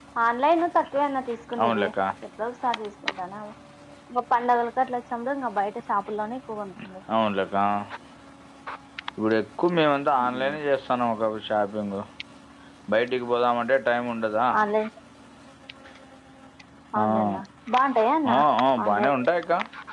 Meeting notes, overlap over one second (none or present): none